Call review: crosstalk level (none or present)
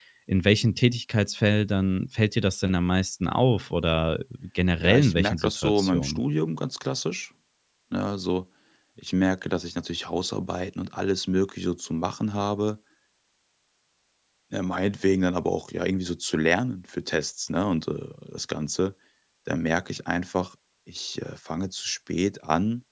present